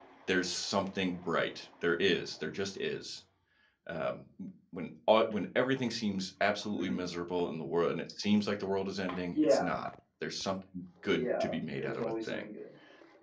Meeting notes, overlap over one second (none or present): present